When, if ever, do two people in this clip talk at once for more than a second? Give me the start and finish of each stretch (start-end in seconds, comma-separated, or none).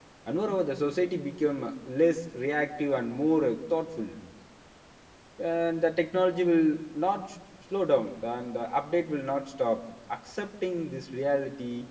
none